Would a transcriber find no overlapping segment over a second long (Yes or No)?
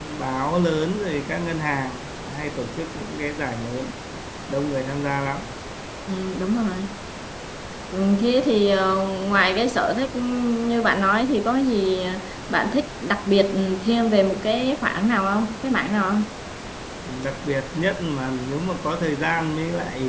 Yes